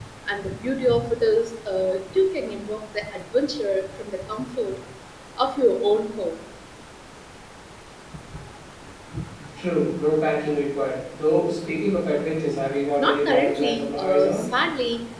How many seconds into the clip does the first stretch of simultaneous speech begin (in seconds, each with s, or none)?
13.0 s